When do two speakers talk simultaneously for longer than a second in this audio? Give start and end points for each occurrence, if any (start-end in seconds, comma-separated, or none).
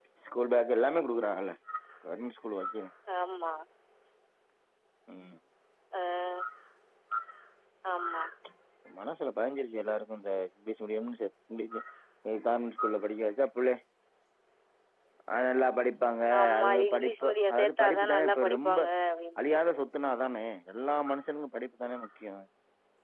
16.4-18.8